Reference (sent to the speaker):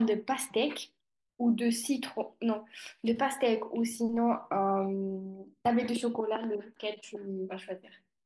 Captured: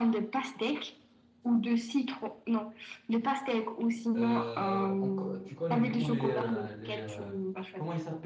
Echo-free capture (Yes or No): No